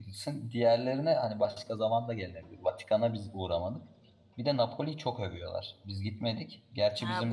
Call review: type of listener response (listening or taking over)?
taking over